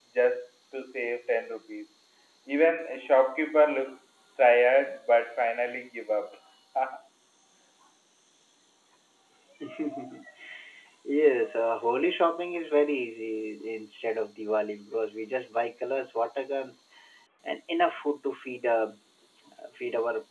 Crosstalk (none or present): none